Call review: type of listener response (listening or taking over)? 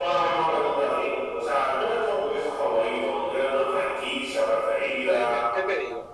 taking over